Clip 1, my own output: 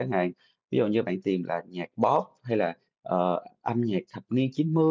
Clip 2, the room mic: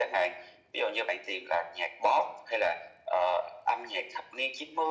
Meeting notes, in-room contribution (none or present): none